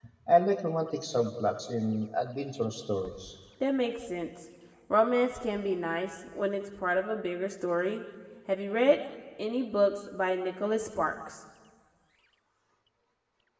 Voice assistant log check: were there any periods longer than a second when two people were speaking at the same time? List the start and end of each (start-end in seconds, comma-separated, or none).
none